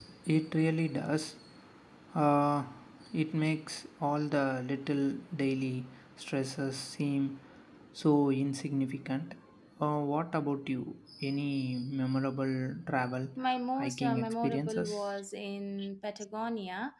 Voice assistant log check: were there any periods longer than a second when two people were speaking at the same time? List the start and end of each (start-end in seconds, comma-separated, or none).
13.8-15.1